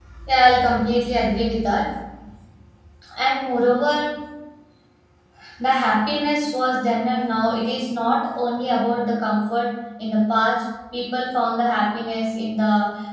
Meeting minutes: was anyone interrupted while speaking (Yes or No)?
No